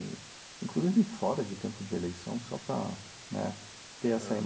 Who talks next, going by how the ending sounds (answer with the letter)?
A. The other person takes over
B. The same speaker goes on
B